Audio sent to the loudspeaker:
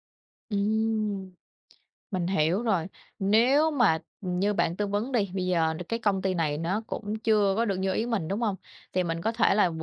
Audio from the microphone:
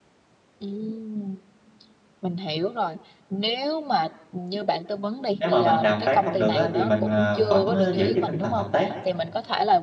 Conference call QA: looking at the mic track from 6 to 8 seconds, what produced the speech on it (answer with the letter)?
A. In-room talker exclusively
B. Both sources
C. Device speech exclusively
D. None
B